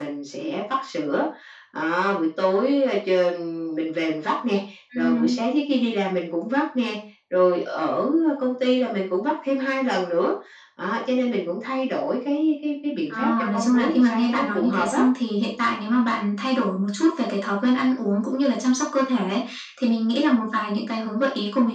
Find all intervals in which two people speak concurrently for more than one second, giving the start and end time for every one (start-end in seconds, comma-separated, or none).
13.1-15.0